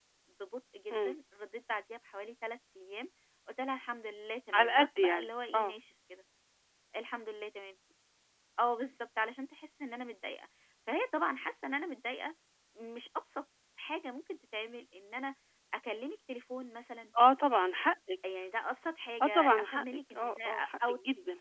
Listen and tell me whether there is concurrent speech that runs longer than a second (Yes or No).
Yes